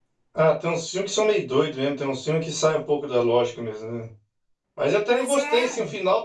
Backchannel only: Yes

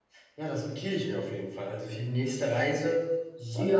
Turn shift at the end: Yes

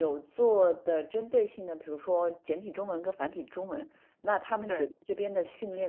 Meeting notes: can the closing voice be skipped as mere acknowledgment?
Yes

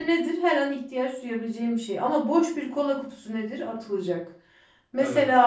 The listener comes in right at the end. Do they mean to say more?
No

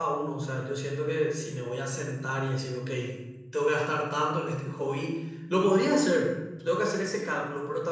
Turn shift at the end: No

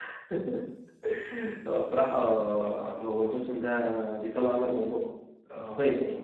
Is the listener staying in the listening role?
No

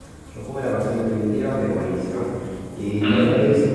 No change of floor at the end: Yes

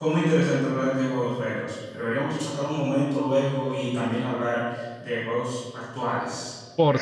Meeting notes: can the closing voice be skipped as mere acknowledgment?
No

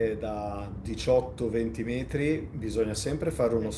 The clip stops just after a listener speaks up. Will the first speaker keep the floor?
Yes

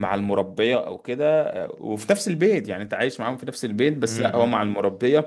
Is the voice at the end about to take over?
No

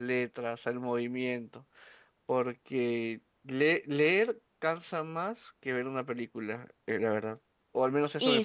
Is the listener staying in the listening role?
No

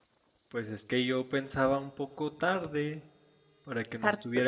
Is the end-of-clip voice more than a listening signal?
No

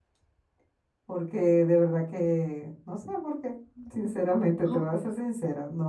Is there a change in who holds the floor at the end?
No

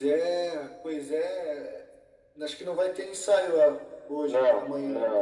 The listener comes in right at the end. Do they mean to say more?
Yes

